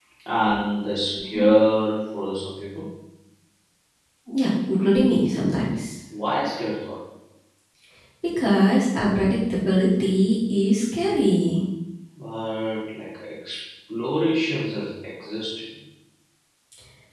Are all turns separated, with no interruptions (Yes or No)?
Yes